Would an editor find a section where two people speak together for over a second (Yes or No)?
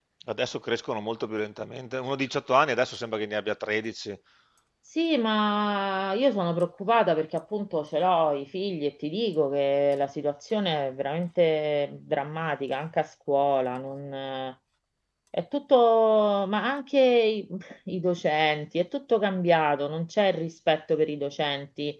No